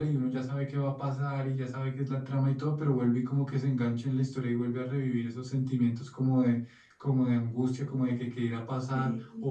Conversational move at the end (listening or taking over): listening